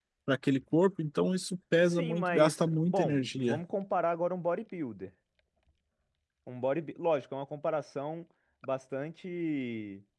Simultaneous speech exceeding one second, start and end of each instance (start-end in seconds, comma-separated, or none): 1.9-3.6